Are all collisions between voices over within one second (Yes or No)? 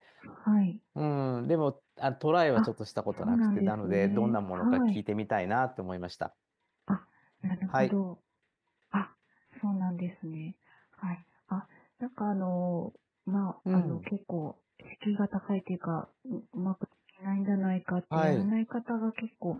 No